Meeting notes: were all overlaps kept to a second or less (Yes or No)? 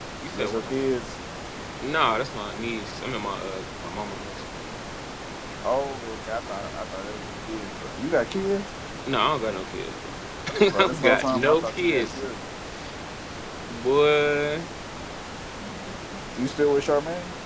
No